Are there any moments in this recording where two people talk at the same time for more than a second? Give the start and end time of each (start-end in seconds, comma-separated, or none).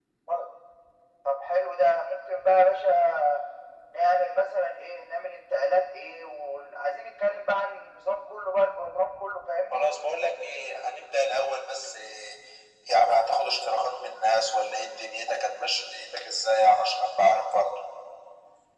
none